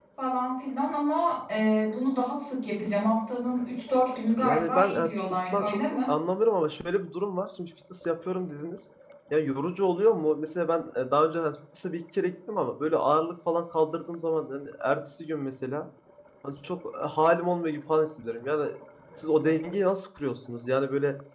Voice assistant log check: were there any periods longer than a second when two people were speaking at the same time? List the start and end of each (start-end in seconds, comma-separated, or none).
4.4-6.2